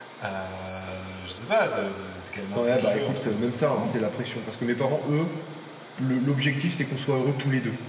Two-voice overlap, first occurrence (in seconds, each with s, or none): 2.6 s